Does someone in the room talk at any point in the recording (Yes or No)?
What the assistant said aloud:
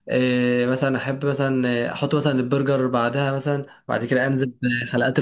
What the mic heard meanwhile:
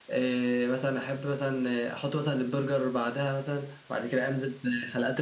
No